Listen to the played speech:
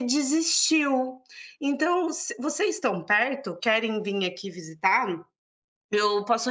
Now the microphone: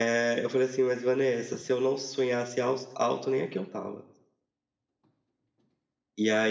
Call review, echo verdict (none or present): none